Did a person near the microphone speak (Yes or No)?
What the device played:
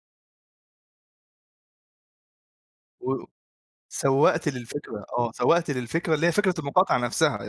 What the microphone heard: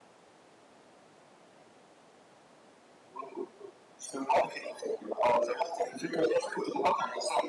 No